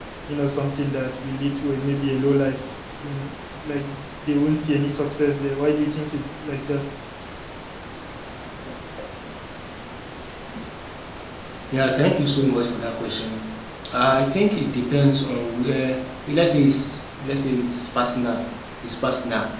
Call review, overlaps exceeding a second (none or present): none